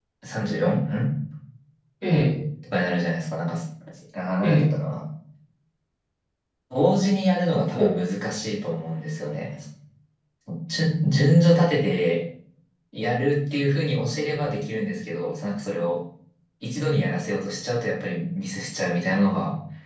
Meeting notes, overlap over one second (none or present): none